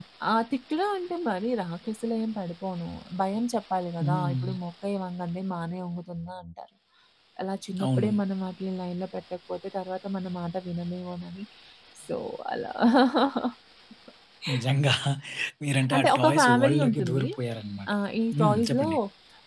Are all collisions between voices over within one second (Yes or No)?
No